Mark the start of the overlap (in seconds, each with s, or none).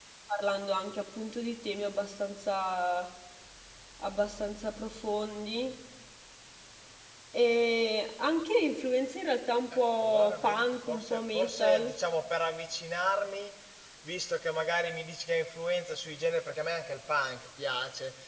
9.7 s